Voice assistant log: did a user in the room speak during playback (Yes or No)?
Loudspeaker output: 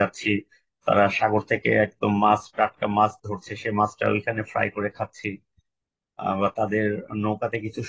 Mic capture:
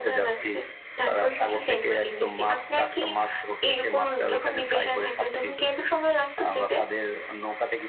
Yes